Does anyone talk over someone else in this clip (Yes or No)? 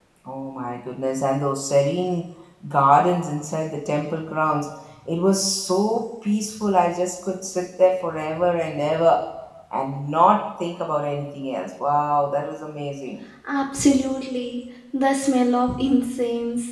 No